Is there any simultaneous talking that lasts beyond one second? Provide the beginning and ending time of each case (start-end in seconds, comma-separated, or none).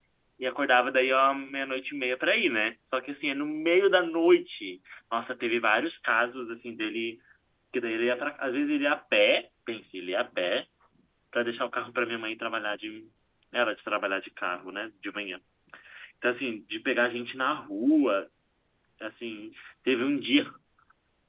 none